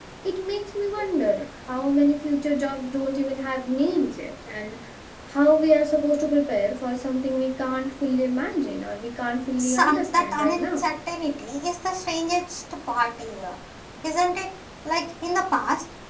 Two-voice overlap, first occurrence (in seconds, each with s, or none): 9.6 s